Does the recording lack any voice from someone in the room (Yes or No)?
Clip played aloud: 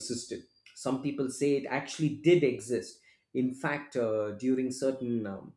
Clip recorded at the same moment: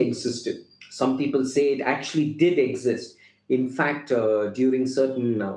Yes